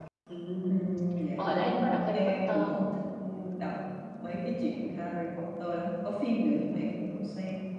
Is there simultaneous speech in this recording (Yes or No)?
Yes